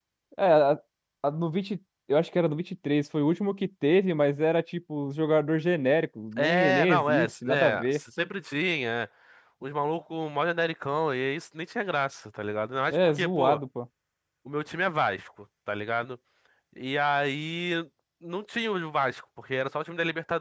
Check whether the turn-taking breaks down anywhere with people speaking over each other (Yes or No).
Yes